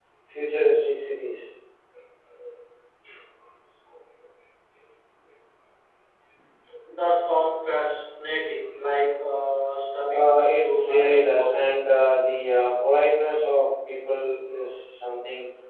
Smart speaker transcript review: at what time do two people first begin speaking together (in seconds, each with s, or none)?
10.1 s